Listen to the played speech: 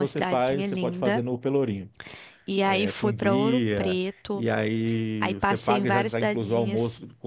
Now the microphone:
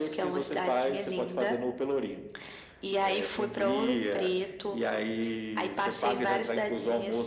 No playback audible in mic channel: No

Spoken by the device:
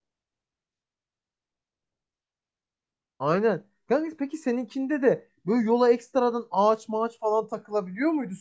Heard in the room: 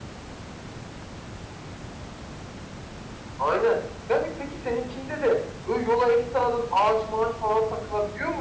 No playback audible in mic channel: No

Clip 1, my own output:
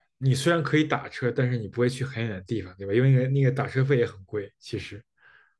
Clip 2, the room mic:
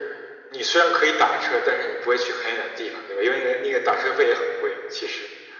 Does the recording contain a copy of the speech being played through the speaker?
Yes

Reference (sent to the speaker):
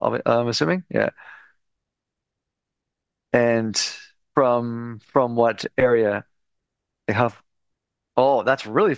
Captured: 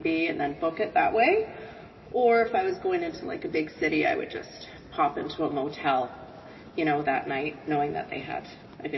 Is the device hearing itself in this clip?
No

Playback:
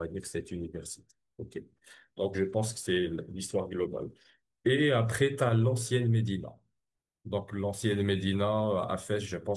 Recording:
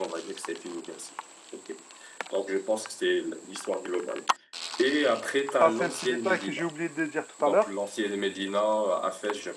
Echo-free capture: No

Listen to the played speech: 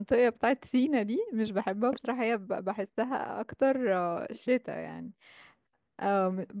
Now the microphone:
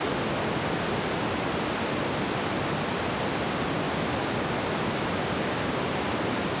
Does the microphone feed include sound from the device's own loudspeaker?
No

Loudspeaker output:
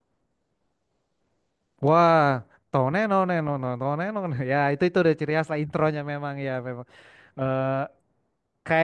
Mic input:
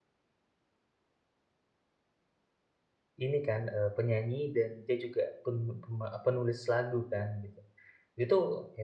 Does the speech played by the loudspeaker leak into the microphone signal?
No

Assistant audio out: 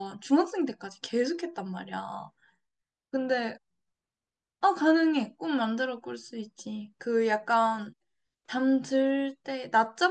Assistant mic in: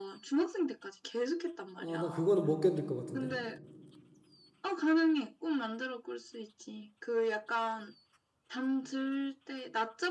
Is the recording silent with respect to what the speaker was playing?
No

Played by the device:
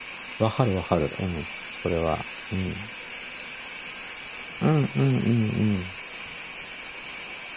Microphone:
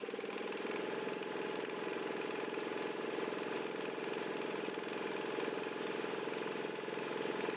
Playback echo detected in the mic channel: No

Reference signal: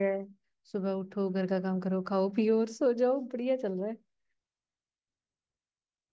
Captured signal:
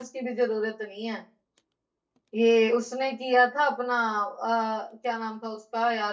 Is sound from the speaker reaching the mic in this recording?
No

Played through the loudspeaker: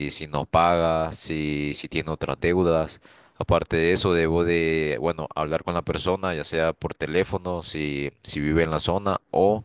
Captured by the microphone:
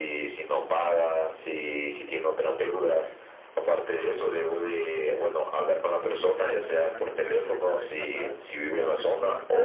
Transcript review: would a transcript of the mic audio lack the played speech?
No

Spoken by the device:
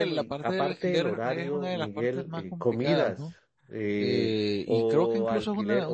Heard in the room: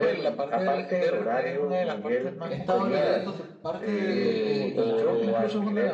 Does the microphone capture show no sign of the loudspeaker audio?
No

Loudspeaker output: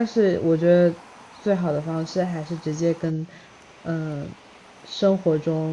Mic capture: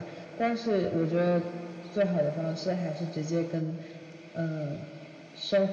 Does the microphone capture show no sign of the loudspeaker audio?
No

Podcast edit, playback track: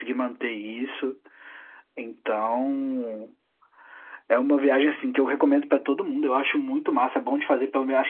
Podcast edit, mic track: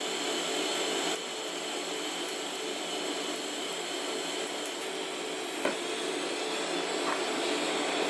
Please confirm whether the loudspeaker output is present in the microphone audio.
No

